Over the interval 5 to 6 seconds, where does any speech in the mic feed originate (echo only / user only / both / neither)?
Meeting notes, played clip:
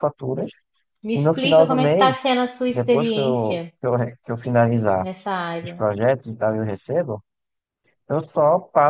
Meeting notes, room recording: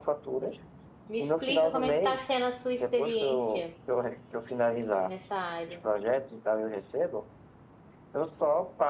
echo only